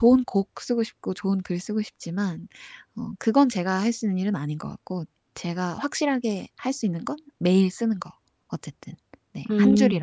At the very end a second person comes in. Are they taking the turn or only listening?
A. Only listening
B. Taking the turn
B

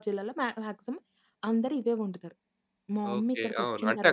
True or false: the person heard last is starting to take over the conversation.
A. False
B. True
B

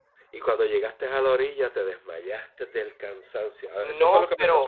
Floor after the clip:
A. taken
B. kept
A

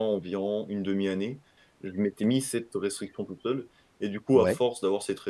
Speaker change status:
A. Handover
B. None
B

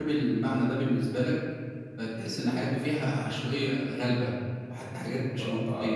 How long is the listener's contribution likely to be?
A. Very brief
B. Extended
B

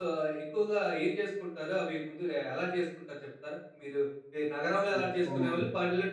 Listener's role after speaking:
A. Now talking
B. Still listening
B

